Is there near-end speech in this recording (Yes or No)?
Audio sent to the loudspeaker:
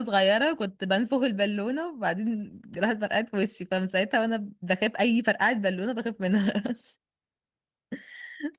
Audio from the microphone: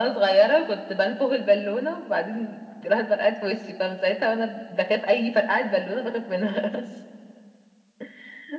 No